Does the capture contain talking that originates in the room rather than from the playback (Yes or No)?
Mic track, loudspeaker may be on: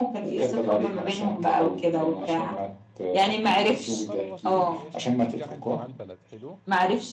Yes